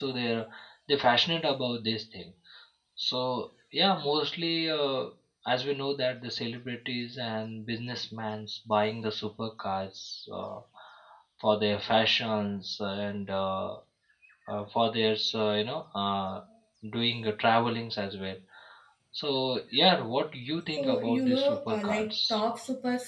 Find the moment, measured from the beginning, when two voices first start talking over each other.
20.7 s

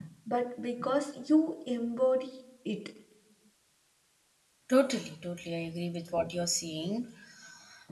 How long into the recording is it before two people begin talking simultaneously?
none

